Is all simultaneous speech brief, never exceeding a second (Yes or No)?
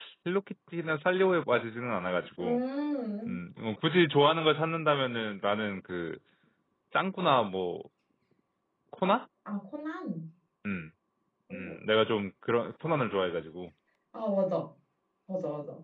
Yes